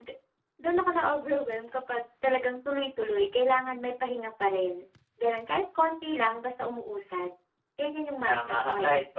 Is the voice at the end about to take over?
Yes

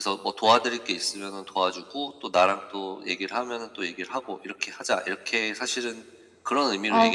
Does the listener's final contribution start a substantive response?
Yes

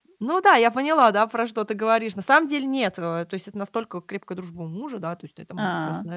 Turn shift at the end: No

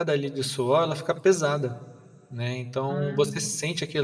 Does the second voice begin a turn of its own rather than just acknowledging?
No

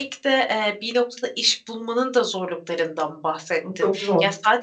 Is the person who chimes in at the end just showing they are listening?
Yes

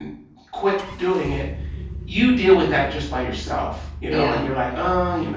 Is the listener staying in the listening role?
Yes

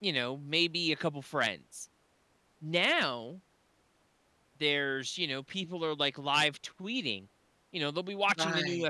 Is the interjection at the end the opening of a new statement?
No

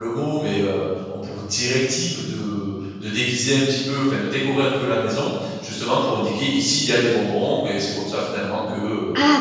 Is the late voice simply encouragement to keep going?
No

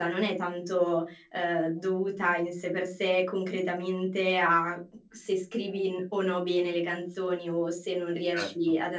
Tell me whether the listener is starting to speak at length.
No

